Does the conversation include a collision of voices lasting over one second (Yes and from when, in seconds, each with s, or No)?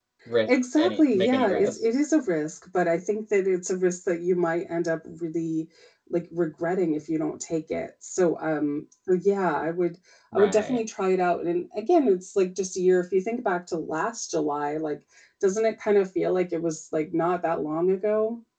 Yes, from 0.8 s